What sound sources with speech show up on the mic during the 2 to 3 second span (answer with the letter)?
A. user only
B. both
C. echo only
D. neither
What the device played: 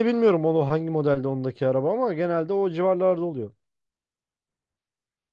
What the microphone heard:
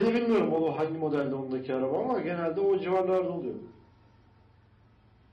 C